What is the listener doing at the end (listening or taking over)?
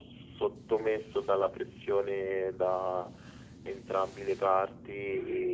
taking over